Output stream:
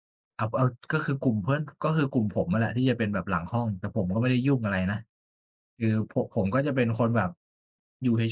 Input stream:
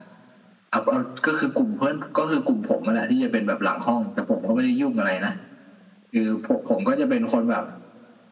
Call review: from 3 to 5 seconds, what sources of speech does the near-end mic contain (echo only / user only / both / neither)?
echo only